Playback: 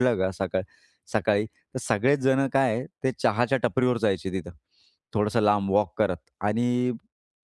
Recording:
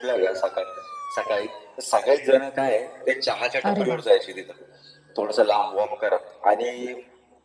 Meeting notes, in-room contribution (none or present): present